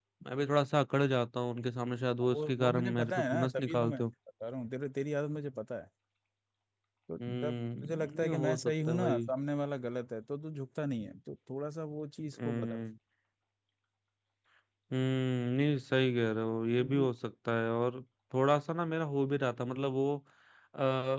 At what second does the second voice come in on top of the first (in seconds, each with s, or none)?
2.3 s